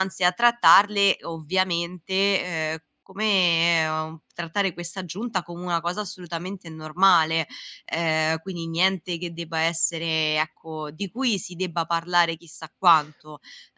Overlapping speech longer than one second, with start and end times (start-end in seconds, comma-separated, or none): none